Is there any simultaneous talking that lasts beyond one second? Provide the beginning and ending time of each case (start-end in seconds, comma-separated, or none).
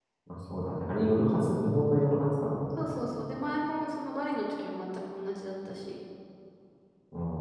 none